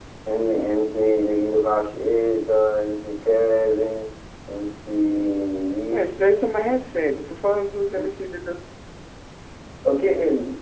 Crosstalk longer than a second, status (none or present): none